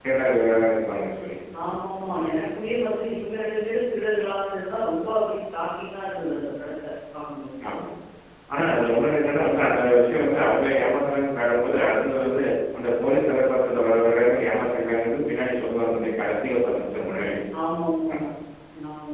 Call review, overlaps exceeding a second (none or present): none